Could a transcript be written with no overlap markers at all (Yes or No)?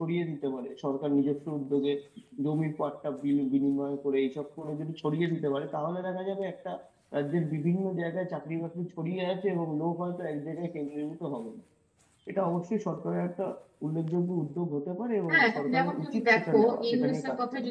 No